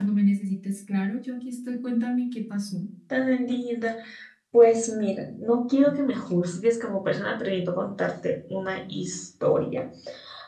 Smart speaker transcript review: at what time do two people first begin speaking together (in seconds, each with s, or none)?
none